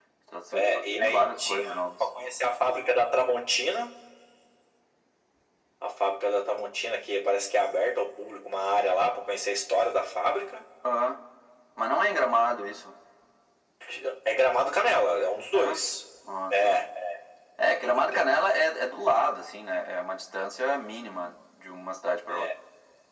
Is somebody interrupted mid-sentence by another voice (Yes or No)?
Yes